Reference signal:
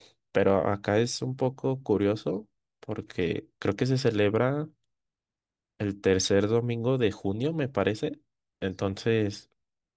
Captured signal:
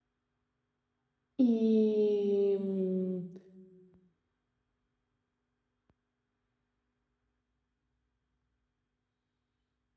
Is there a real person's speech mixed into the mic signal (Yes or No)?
Yes